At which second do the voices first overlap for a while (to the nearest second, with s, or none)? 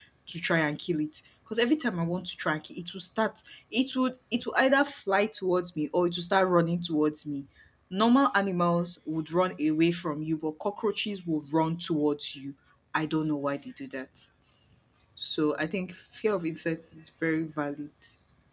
none